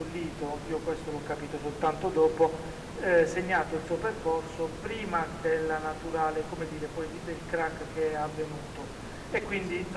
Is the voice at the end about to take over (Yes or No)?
No